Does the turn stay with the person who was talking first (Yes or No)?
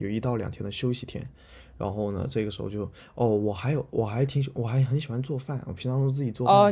No